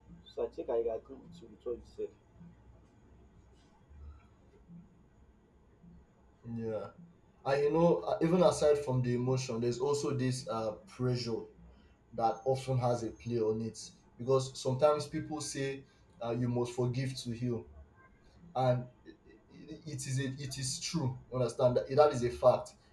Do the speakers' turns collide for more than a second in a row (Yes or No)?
No